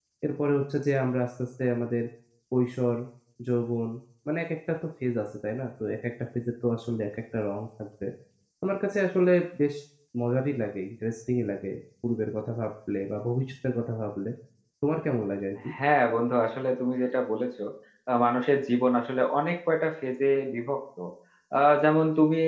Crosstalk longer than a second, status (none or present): none